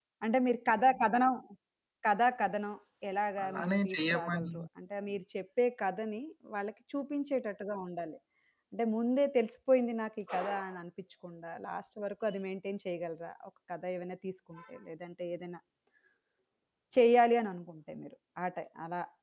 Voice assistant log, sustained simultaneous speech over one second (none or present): present